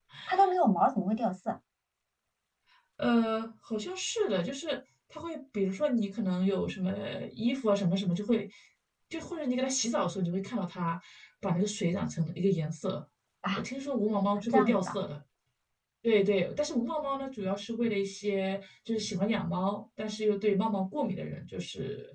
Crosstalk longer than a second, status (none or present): none